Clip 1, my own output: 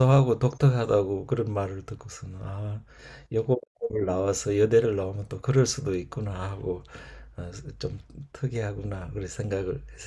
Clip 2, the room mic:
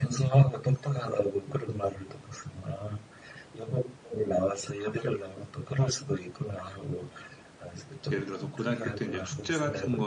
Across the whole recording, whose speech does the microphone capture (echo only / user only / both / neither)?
both